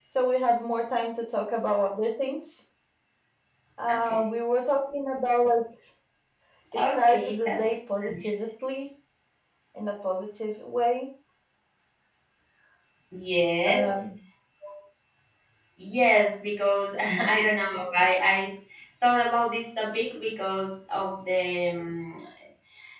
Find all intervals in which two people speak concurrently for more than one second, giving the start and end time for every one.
6.8-8.1

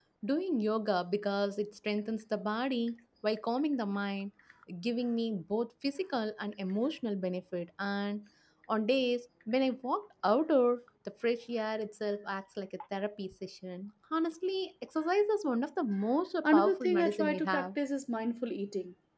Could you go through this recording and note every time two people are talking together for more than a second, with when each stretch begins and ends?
16.4-17.7

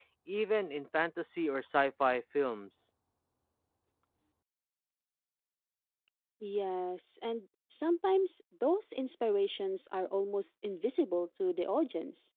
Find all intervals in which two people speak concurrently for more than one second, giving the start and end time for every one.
none

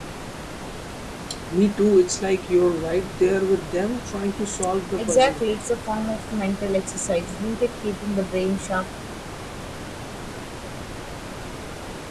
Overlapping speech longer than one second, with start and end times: none

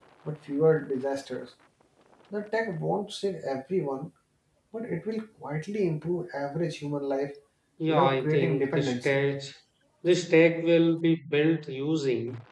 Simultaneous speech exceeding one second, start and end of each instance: 7.9-9.2

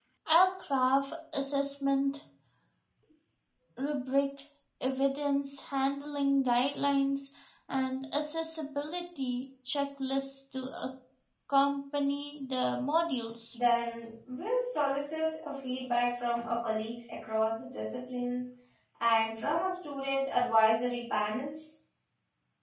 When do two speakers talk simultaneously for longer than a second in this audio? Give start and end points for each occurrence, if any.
none

